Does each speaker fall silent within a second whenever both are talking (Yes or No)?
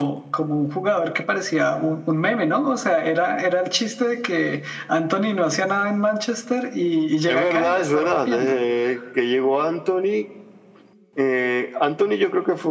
No